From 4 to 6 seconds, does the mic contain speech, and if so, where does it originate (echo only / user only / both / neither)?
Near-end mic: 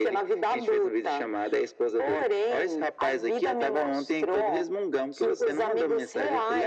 echo only